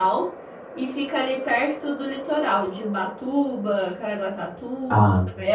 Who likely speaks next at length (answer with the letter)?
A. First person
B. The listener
A